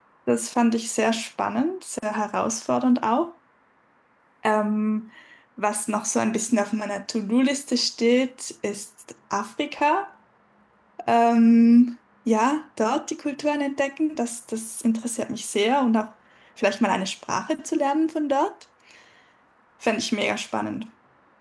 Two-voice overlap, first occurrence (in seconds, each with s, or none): none